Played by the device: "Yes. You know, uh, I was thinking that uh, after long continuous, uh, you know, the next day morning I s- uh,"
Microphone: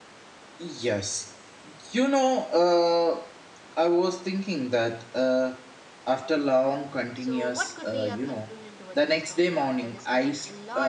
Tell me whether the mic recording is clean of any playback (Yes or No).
No